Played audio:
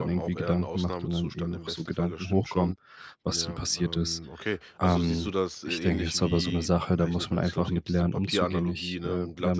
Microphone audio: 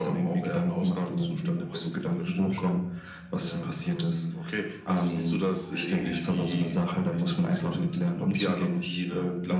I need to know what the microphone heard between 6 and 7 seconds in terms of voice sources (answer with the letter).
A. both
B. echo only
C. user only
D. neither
B